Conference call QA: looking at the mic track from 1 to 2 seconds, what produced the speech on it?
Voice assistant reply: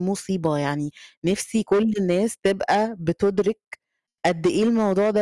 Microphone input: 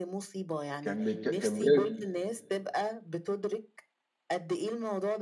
both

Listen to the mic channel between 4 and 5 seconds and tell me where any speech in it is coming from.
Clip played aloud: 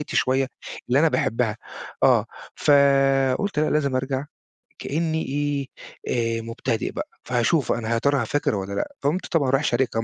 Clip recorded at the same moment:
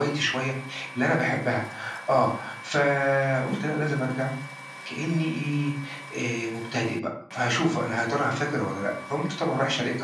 echo only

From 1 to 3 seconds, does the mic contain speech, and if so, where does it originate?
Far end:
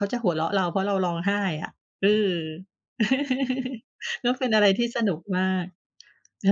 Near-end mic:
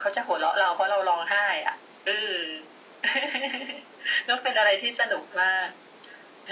echo only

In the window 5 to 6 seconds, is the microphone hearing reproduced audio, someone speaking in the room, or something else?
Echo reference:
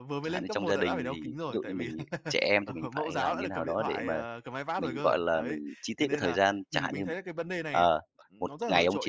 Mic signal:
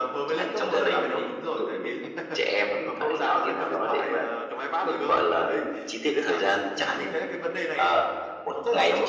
echo only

